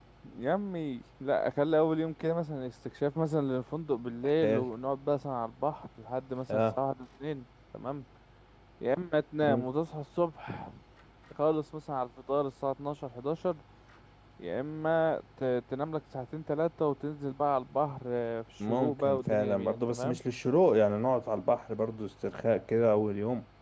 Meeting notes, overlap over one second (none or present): present